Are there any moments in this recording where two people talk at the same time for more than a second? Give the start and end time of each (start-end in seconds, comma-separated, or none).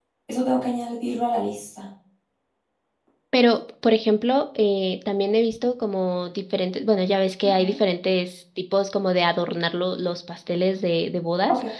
none